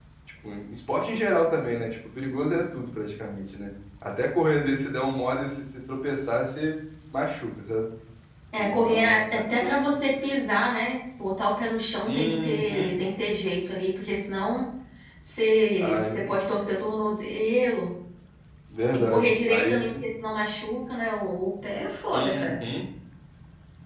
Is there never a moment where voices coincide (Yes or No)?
No